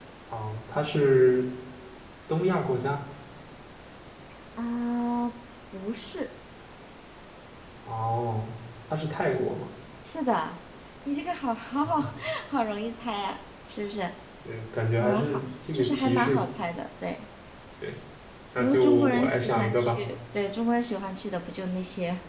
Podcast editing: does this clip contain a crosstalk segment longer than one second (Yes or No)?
Yes